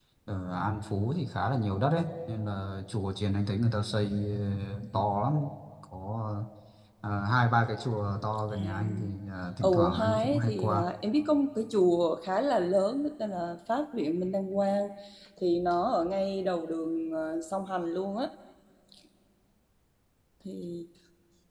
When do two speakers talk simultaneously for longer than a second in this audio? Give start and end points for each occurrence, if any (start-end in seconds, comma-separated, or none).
9.6-10.9